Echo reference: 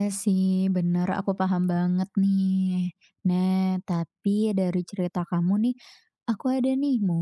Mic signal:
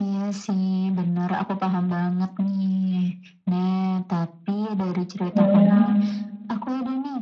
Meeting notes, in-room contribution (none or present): present